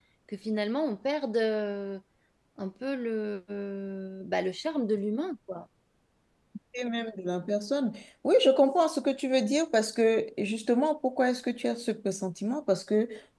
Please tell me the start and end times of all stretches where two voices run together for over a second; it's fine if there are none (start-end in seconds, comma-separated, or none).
none